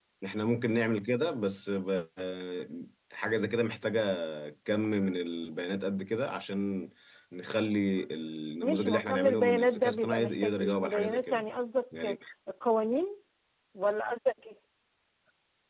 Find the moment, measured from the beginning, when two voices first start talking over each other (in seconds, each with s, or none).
8.6 s